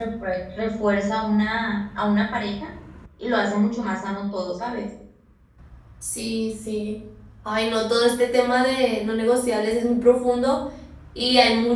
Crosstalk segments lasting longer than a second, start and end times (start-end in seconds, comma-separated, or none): none